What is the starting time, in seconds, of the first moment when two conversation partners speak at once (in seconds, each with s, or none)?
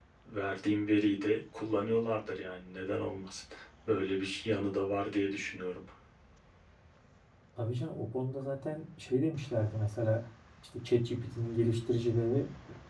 none